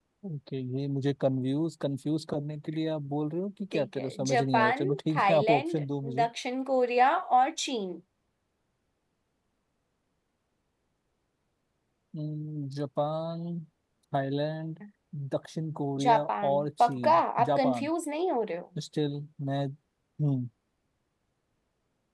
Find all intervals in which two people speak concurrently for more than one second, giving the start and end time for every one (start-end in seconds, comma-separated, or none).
3.7-5.8, 16.0-17.9